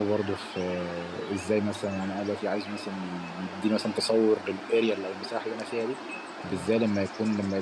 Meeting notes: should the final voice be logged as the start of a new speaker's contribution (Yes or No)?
No